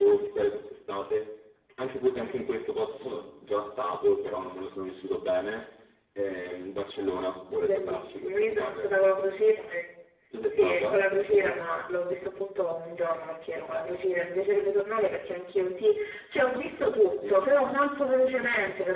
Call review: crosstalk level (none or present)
present